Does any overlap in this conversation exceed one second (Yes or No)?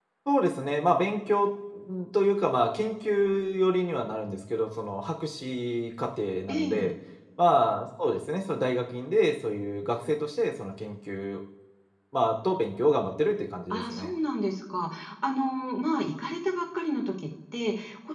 No